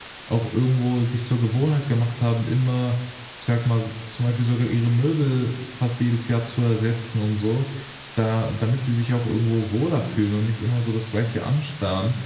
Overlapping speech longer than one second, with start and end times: none

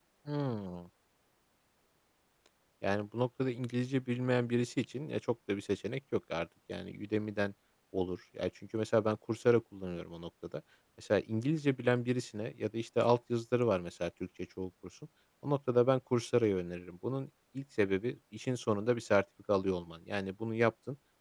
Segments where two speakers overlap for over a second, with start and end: none

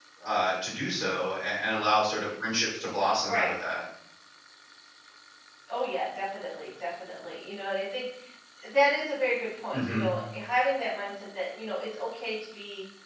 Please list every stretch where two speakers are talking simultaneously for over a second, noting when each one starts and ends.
none

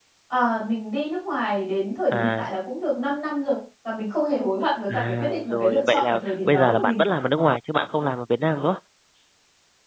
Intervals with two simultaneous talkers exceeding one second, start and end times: 4.9-7.0

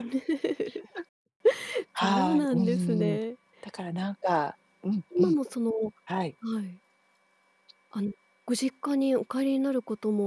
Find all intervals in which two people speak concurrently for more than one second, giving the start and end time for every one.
2.0-3.2

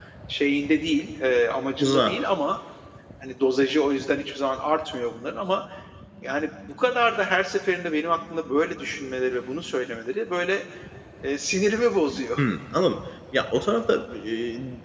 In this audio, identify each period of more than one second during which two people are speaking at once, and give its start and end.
none

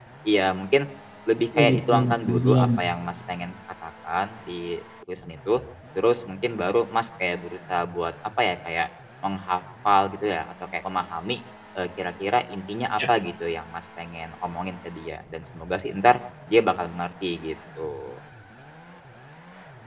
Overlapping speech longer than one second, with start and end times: 1.6-2.8

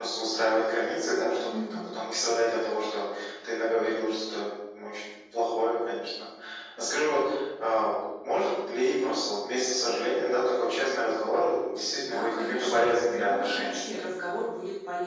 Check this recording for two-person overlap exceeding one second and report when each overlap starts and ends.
12.0-13.8

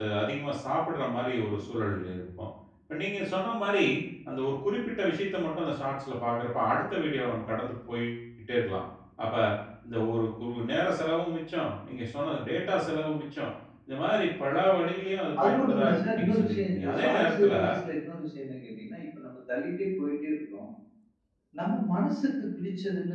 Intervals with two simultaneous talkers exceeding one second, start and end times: 15.4-17.5

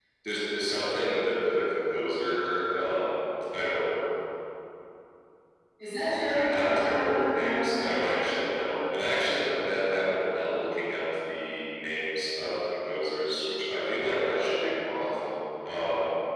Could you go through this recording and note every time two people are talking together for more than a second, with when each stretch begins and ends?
6.5-8.4

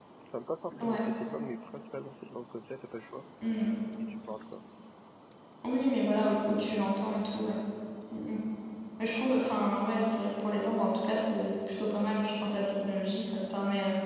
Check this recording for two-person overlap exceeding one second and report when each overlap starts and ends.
none

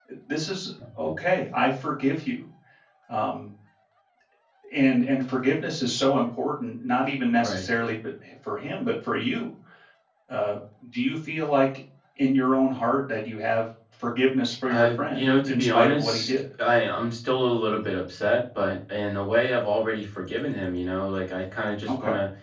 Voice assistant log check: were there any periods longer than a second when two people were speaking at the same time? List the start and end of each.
14.7-16.4

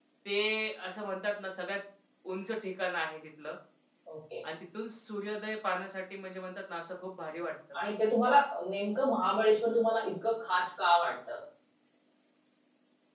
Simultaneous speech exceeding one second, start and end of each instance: none

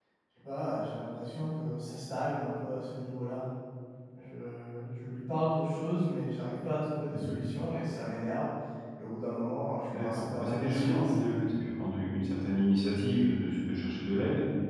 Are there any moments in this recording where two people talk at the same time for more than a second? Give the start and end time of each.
9.9-11.1

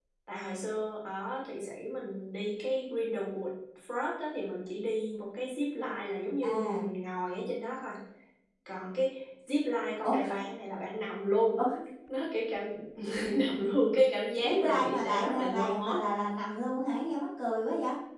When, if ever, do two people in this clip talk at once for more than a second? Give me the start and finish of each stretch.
14.4-16.0

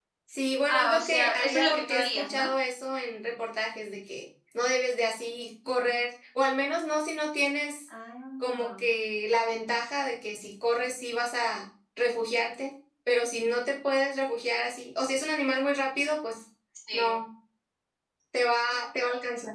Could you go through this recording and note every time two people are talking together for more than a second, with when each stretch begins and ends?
0.7-2.5

